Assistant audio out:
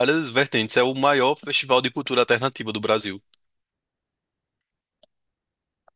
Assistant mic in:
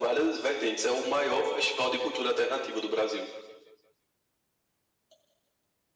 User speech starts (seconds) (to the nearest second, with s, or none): none